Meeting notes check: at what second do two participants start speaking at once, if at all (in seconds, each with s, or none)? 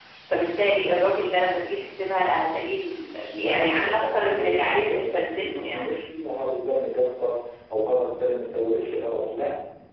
3.4 s